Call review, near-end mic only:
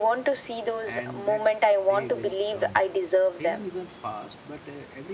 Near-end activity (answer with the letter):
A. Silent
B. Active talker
B